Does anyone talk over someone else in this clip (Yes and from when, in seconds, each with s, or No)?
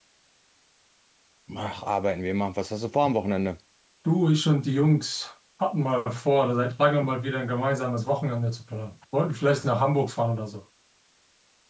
No